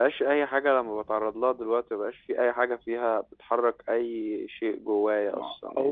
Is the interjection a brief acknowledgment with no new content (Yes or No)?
No